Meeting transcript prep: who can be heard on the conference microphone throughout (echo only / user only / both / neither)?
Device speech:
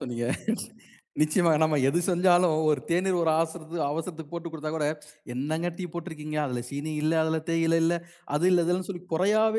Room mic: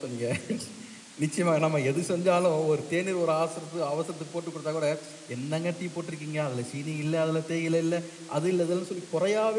echo only